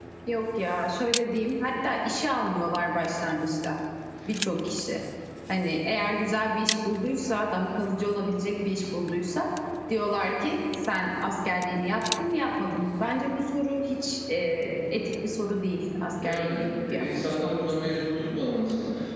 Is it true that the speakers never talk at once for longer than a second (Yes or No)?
No